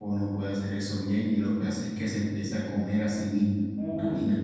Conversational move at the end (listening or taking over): taking over